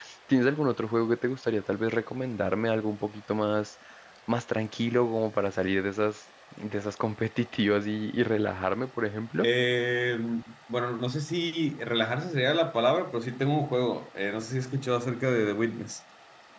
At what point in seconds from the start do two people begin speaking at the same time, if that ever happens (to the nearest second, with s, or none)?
none